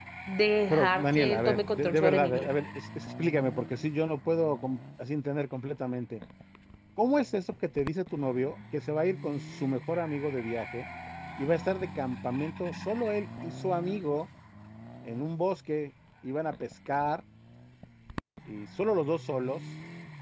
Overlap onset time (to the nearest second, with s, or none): 1 s